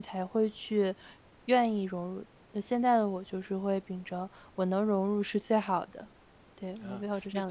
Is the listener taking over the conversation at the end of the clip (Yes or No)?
Yes